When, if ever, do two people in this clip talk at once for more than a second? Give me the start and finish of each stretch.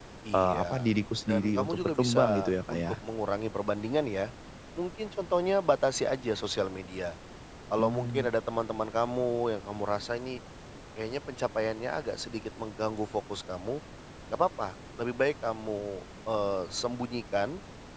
1.3-2.8

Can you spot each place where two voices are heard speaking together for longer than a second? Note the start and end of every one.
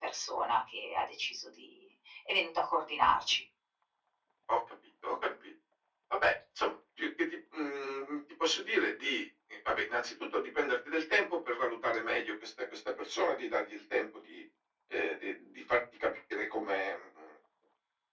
none

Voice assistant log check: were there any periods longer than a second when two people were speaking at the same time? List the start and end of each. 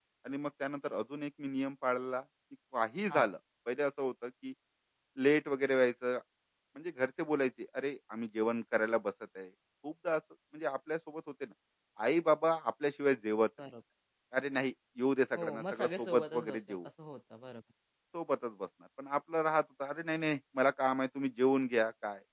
15.4-16.8

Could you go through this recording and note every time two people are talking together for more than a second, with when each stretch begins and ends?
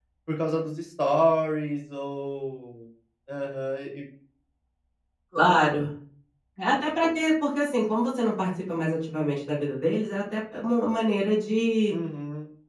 none

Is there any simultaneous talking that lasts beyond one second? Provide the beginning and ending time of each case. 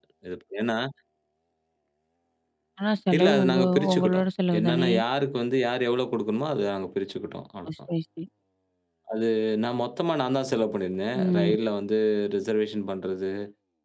3.2-4.9

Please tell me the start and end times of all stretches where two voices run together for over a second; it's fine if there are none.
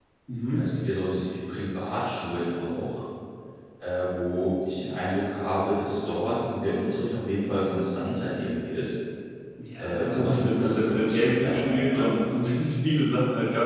9.8-12.2

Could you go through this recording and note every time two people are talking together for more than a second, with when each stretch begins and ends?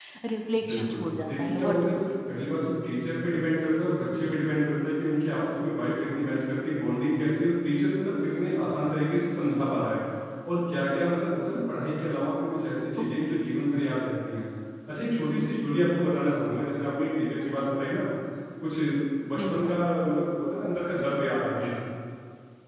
0.7-2.0

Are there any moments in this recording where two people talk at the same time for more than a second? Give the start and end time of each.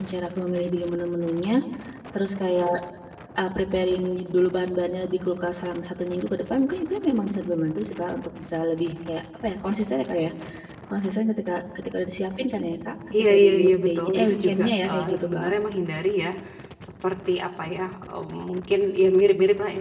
13.2-15.5

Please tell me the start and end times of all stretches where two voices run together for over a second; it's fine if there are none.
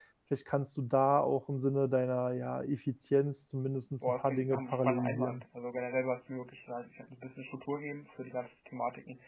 4.1-5.4

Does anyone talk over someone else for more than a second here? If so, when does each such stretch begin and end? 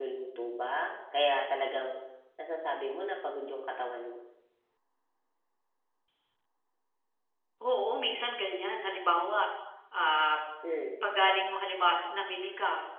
none

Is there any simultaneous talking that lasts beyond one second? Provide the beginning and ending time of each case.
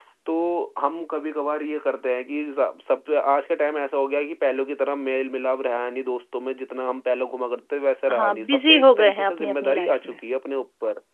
8.1-10.2

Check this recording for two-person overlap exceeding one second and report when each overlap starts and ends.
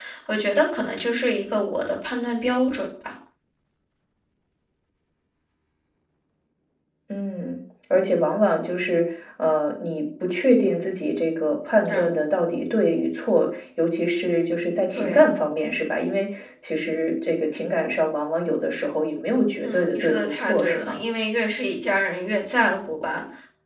19.6-21.0

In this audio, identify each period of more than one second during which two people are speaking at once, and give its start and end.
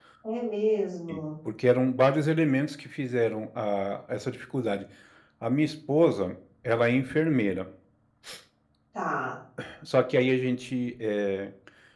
none

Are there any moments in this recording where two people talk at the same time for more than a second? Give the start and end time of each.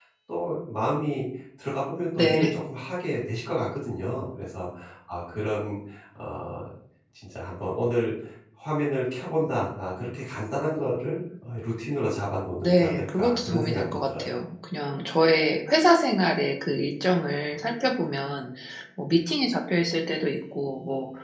12.6-14.2

